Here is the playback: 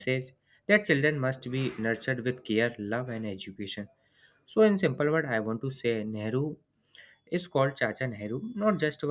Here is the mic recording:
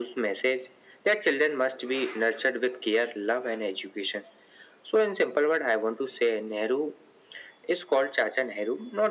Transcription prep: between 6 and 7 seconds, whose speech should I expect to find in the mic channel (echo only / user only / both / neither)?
echo only